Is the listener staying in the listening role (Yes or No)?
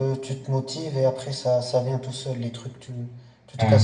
Yes